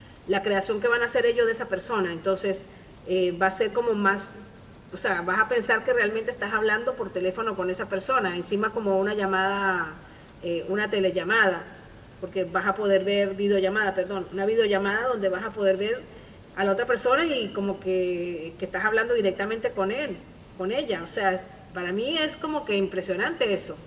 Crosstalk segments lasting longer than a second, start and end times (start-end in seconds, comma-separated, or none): none